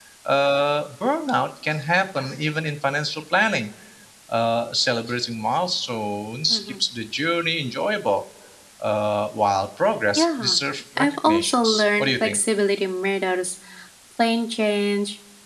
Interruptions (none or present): present